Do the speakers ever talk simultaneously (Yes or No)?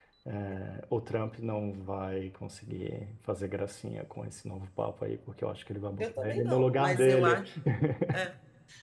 Yes